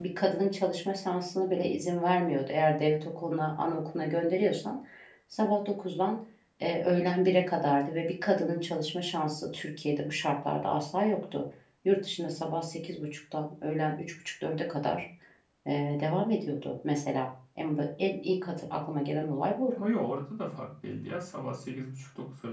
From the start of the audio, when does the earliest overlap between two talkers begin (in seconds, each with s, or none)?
none